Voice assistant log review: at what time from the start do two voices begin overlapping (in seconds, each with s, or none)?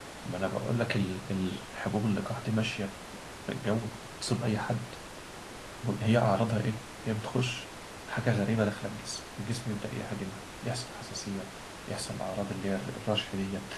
none